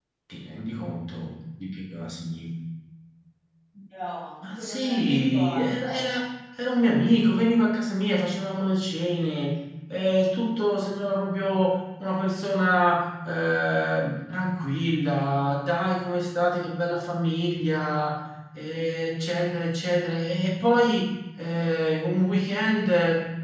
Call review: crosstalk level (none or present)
present